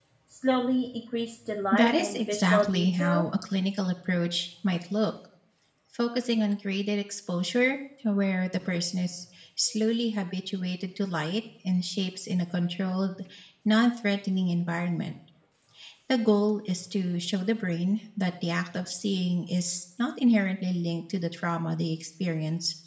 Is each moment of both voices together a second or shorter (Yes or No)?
No